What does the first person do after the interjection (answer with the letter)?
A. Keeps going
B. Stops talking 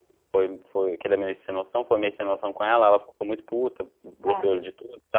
A